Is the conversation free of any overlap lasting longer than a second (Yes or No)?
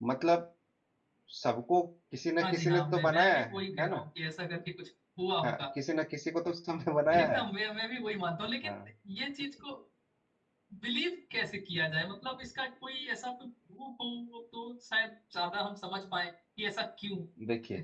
No